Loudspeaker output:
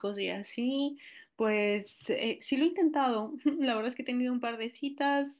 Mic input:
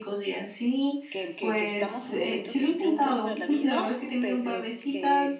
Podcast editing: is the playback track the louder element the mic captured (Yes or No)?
Yes